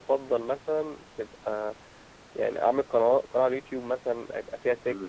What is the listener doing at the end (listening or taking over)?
listening